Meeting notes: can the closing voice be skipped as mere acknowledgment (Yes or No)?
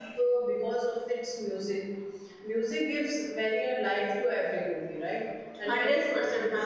No